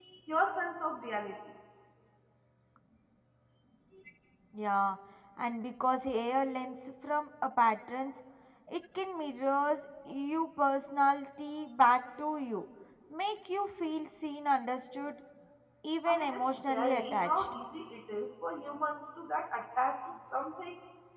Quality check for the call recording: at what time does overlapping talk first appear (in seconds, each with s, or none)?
16.1 s